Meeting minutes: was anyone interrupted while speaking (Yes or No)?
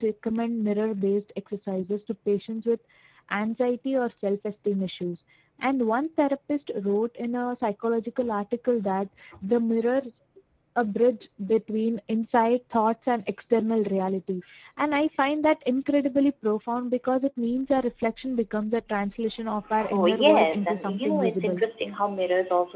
Yes